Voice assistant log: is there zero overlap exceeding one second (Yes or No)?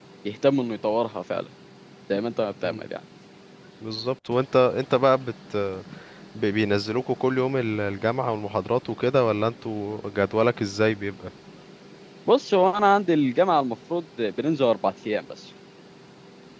Yes